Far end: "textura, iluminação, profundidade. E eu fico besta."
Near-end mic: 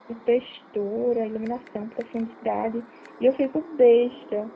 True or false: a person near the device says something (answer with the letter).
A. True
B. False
B